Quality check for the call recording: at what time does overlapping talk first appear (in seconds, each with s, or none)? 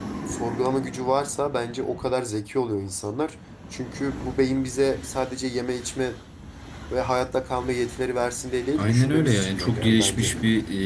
8.8 s